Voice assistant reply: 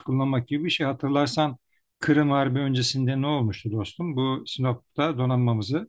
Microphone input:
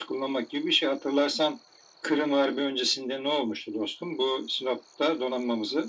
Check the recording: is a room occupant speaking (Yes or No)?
No